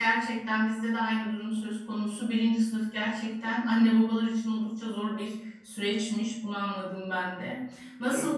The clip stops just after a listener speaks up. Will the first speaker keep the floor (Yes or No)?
Yes